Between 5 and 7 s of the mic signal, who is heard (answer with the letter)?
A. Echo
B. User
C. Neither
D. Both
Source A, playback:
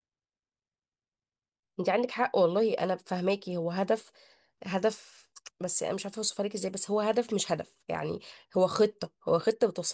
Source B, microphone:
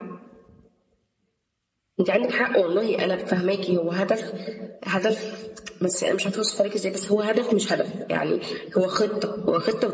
A